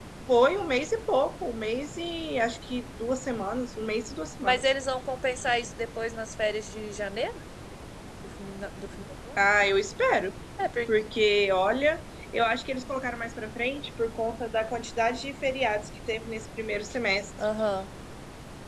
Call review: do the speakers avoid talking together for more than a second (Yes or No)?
Yes